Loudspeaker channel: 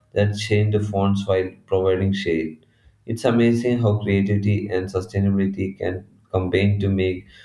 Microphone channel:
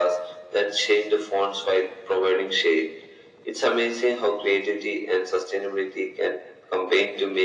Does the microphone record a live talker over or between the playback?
No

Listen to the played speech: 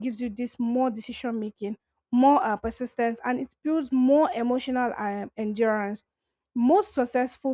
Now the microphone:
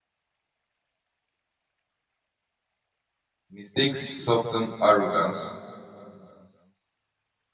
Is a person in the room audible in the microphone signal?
Yes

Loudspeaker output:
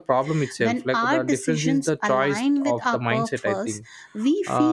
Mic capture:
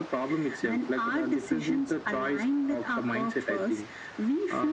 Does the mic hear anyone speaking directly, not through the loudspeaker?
No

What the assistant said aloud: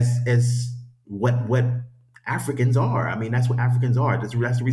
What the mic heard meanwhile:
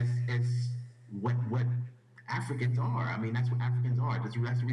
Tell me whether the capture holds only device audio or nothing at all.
Yes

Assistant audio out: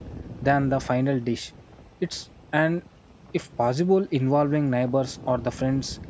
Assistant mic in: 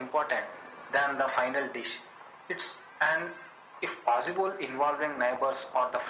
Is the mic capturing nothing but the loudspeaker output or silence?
Yes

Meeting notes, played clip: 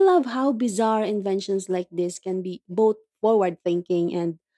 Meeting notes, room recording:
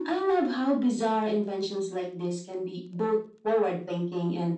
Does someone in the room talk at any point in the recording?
No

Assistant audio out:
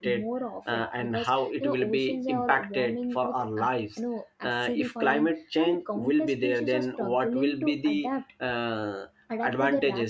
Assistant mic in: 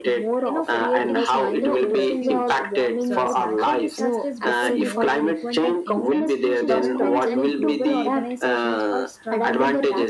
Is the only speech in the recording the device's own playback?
No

